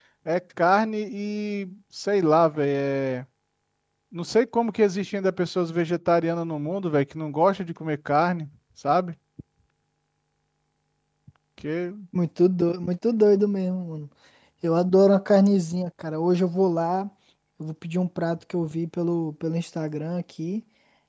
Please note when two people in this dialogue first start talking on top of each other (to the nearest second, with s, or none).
none